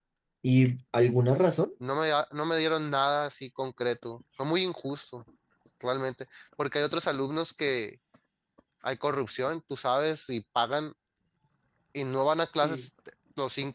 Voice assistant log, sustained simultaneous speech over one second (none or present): none